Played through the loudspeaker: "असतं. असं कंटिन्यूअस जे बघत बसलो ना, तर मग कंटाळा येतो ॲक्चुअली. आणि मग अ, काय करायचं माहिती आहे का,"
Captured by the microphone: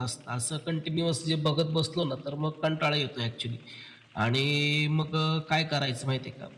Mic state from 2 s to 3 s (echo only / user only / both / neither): echo only